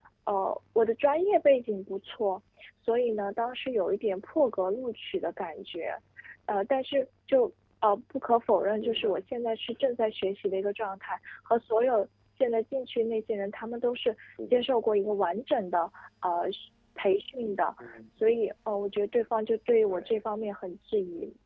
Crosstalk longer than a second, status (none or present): none